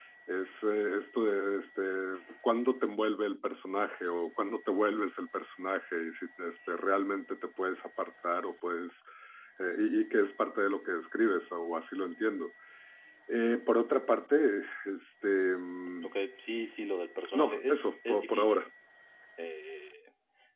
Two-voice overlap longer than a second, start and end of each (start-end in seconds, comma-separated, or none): 17.3-18.6